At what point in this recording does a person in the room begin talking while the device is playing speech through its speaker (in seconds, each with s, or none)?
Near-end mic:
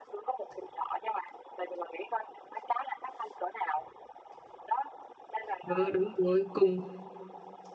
5.7 s